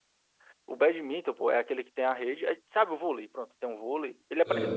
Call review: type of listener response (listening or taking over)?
listening